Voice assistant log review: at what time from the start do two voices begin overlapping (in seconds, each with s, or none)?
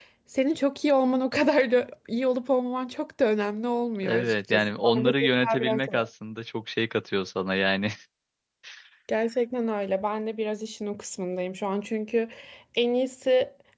4.0 s